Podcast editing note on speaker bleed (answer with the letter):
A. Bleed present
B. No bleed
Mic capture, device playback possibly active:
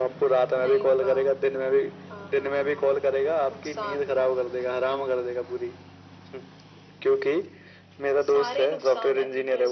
A